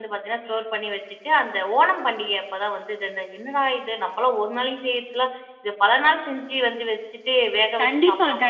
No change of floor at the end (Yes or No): No